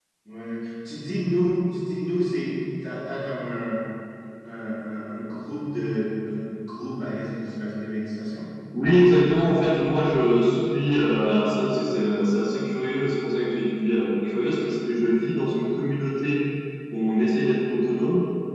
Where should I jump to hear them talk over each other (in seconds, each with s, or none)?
none